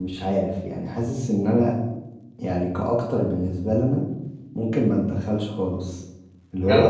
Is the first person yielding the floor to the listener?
No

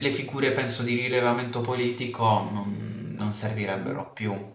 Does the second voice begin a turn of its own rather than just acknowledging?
Yes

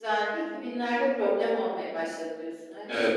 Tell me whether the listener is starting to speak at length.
Yes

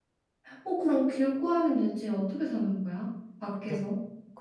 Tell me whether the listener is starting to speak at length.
Yes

